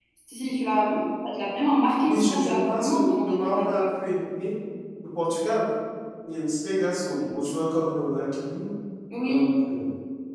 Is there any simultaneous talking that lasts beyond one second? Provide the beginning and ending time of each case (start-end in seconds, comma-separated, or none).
2.0-3.8